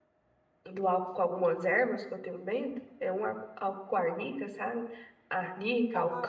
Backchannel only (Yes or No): Yes